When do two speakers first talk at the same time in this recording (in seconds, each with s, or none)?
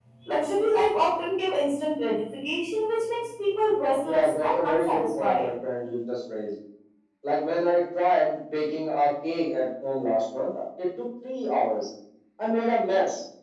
4.0 s